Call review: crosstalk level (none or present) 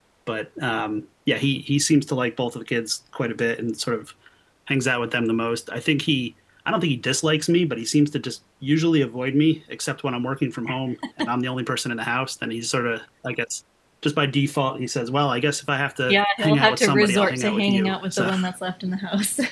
present